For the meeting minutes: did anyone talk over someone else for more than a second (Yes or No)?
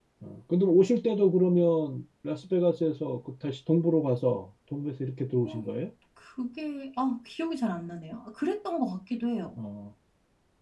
No